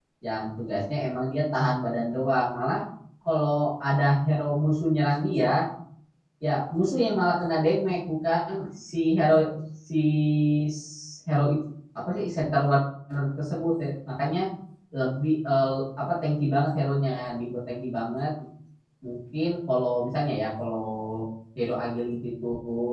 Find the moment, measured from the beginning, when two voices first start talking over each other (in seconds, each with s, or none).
none